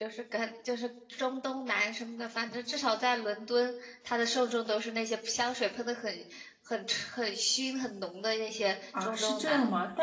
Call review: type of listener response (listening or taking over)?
taking over